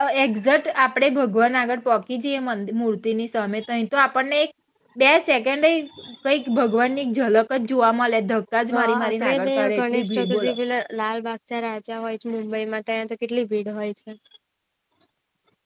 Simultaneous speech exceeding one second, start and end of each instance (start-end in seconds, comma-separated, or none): 8.7-10.5